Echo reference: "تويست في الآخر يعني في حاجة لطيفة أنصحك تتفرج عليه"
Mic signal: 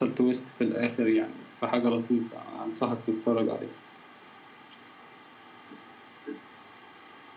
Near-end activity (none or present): none